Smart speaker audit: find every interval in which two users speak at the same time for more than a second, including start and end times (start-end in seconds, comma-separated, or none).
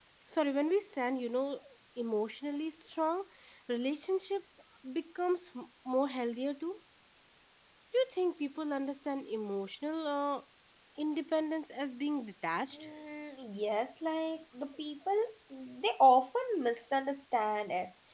none